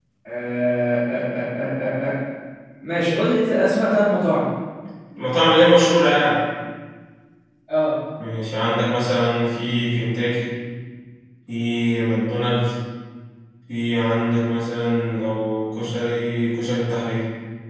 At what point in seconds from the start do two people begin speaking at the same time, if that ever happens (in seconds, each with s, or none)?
none